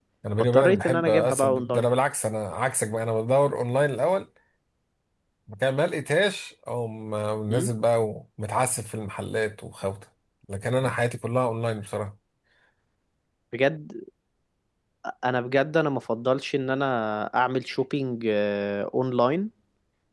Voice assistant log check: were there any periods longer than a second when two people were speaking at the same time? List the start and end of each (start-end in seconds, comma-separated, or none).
0.5-1.9